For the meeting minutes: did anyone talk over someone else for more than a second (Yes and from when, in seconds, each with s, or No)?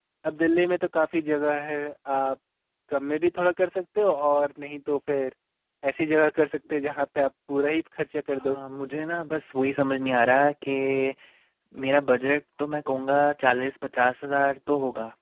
No